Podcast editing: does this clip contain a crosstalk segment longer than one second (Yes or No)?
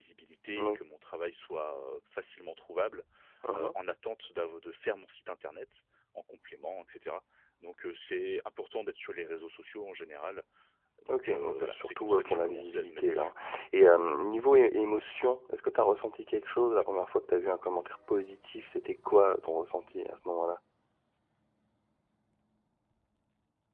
Yes